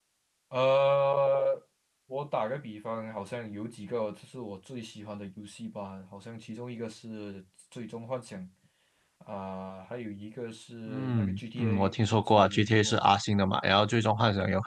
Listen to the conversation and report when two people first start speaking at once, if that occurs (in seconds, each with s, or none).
10.9 s